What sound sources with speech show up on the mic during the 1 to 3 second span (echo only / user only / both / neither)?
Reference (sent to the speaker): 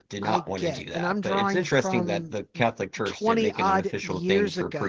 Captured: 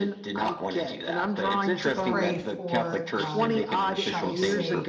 both